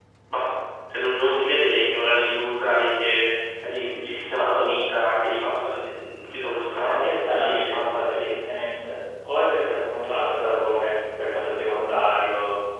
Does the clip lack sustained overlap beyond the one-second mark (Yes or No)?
No